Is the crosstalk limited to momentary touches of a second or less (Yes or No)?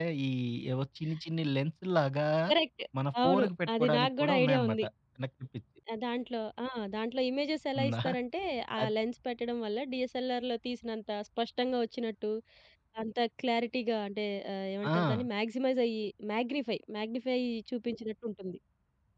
No